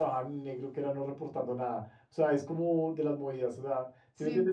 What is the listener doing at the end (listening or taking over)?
listening